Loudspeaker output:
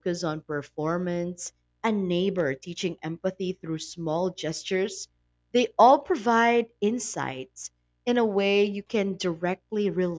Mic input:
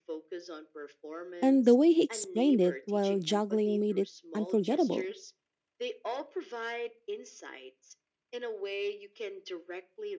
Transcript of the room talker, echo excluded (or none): and the way he explained it while juggling made it unforgettable.